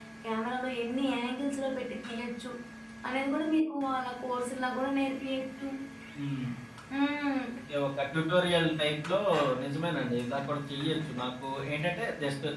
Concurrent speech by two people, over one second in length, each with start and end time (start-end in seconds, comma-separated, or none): none